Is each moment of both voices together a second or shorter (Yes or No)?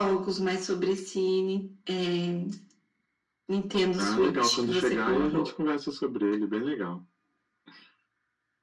No